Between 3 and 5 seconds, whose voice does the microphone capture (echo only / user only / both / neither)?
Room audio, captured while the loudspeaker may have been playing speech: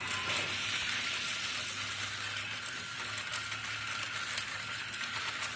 neither